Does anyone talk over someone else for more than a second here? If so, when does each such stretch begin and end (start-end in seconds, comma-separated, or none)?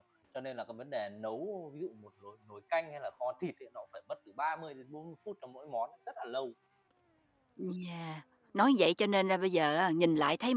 none